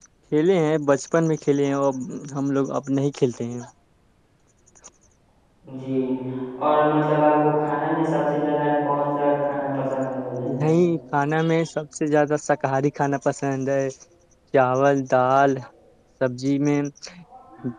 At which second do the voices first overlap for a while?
none

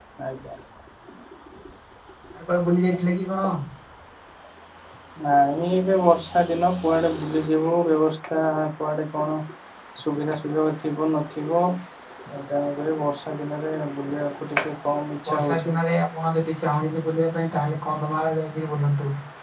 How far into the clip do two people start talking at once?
14.5 s

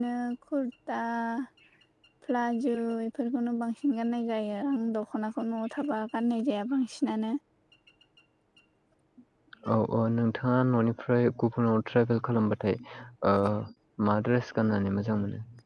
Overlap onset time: none

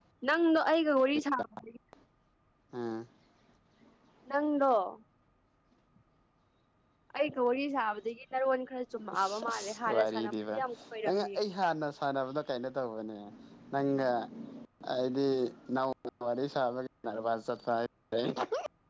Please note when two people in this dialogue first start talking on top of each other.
9.1 s

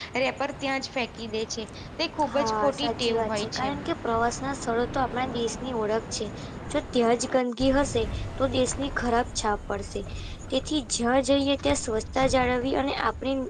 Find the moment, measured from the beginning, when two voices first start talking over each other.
2.2 s

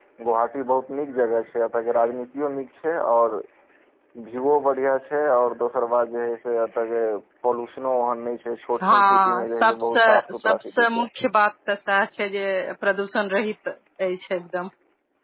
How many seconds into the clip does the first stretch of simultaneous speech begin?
8.7 s

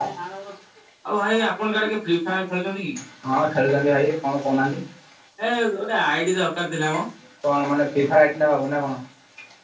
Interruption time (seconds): none

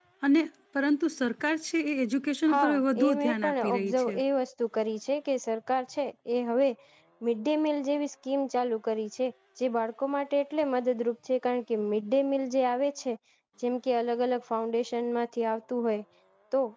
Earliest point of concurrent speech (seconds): 2.5 s

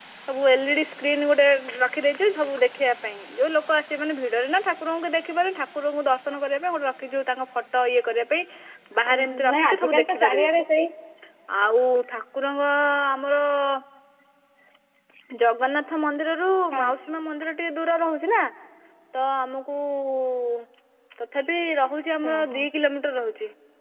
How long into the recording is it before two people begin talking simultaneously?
9.1 s

